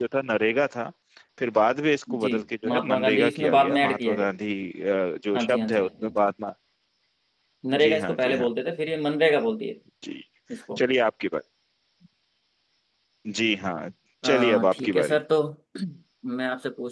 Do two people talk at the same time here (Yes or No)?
Yes